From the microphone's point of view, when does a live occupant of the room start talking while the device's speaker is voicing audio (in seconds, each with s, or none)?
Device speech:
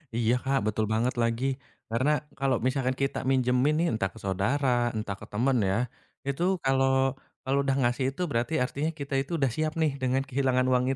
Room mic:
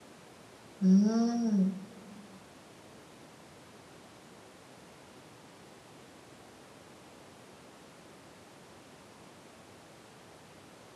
0.8 s